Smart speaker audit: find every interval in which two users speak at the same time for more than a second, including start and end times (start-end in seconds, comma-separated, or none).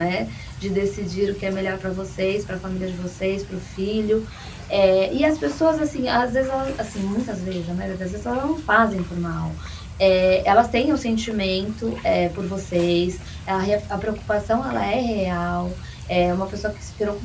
none